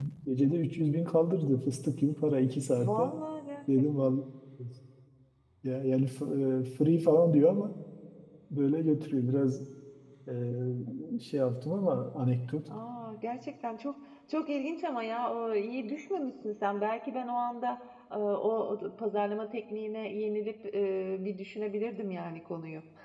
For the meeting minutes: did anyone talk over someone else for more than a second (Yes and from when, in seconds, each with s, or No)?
No